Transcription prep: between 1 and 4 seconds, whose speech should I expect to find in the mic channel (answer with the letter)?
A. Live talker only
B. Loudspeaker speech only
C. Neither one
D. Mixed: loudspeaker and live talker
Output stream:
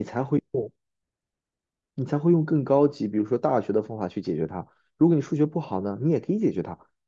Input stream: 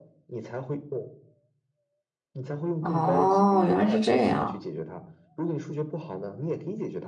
D